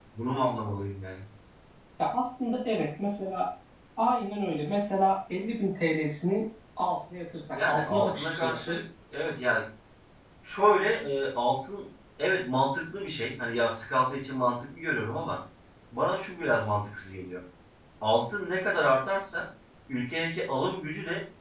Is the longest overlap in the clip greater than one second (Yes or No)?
Yes